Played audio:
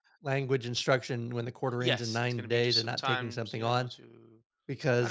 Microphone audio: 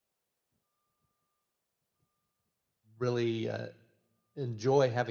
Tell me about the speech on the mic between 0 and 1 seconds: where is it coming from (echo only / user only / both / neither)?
neither